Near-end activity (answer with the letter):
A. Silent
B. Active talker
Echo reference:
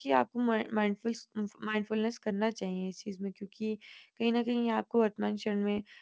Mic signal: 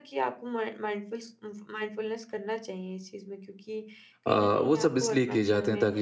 B